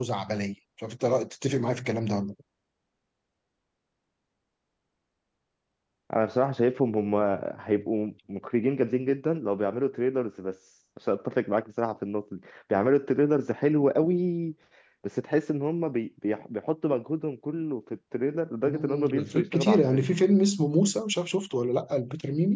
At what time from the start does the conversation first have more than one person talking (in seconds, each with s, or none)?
18.6 s